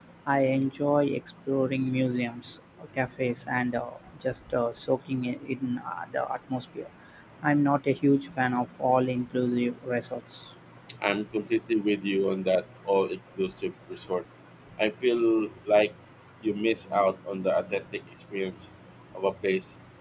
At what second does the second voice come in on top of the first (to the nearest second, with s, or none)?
none